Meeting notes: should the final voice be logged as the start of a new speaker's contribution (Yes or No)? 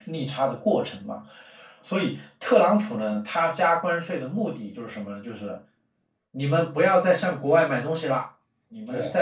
No